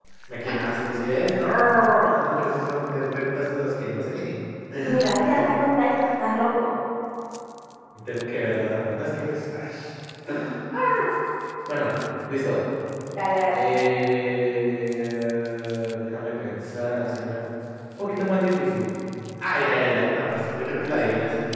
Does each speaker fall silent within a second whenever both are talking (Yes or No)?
Yes